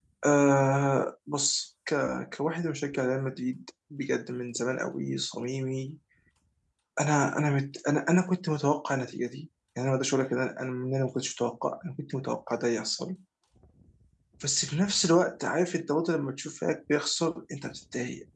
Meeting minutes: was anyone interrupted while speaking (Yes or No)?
No